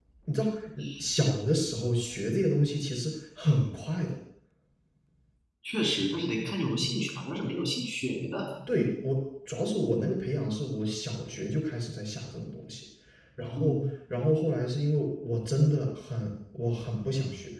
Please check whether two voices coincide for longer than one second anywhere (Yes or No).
No